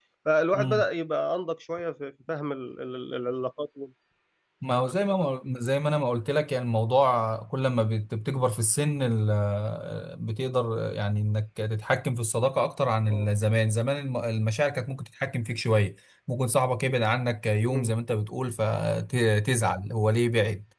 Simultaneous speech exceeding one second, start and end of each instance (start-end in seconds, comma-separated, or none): none